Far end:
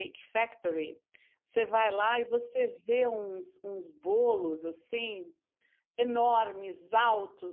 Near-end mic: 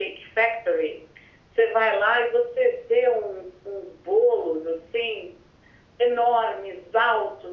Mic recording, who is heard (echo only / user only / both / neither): echo only